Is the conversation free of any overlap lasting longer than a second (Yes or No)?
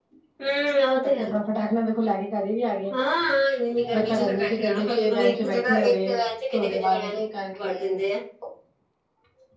No